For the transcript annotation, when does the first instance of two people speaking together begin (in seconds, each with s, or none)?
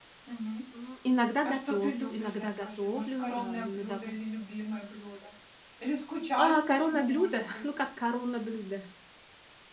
1.4 s